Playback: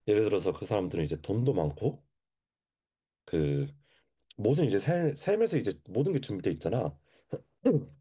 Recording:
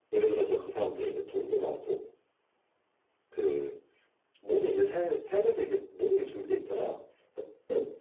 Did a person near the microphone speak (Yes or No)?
No